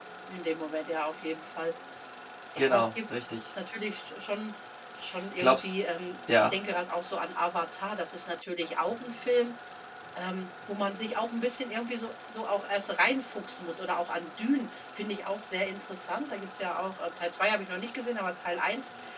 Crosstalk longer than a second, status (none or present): none